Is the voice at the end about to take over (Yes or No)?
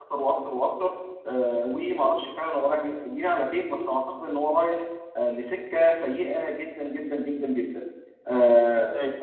No